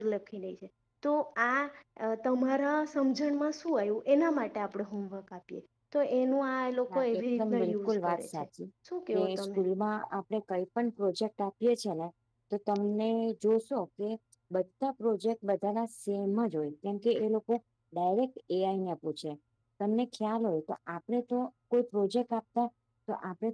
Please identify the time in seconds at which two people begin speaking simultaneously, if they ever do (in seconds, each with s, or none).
6.9 s